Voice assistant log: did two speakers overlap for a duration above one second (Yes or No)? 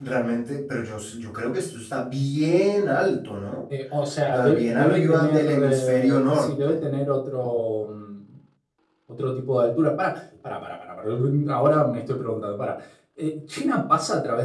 Yes